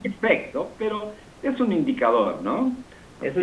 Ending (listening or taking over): taking over